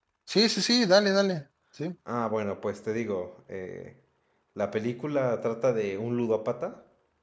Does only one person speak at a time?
Yes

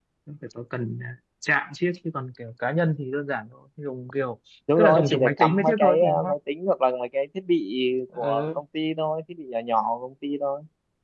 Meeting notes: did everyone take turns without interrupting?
No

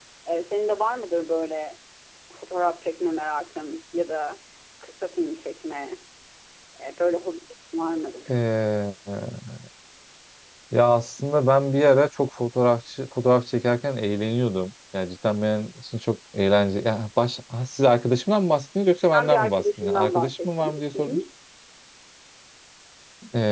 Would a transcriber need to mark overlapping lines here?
Yes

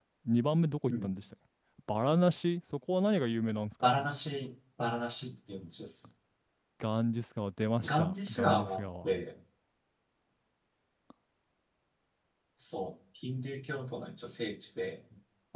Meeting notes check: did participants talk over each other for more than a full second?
Yes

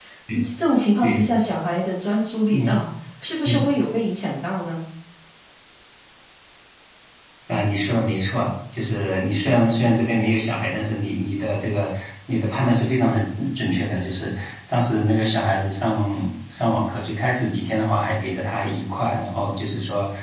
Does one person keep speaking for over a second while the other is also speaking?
No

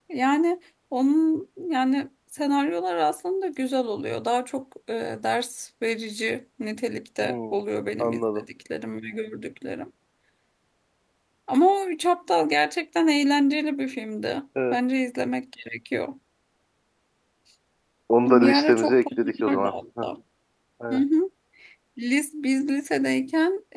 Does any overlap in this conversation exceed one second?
Yes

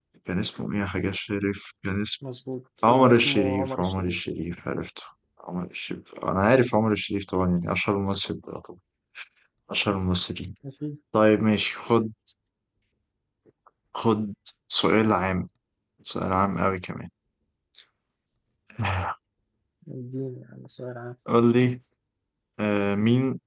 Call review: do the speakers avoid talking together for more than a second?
No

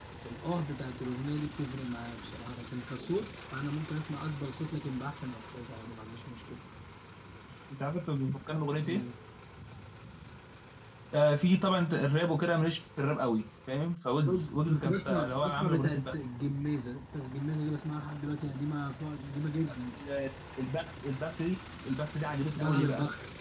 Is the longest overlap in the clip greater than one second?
Yes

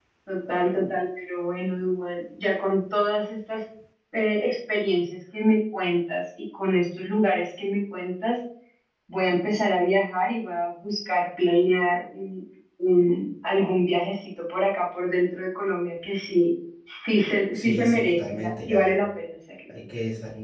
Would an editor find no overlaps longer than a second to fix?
No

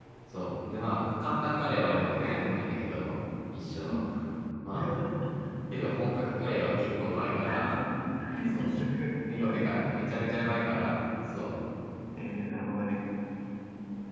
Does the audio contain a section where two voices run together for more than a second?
No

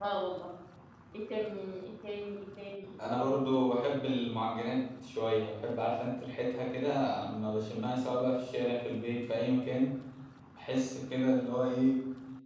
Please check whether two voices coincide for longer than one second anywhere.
No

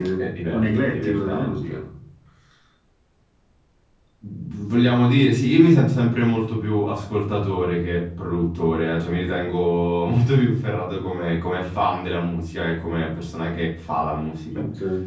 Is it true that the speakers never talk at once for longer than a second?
No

